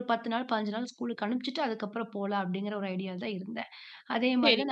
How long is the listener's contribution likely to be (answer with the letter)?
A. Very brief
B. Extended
B